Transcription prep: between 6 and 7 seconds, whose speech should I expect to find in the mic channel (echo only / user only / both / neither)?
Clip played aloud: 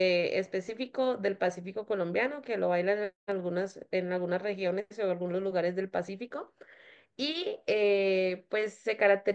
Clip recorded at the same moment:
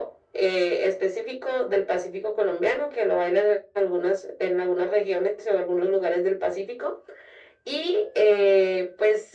echo only